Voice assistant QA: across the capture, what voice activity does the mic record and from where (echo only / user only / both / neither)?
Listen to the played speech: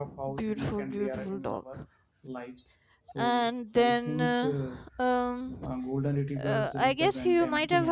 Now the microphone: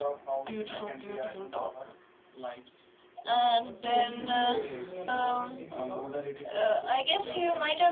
both